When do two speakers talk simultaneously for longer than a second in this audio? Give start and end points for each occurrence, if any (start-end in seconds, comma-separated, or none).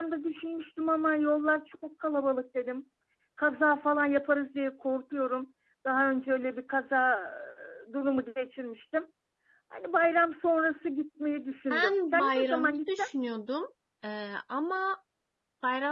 11.7-13.1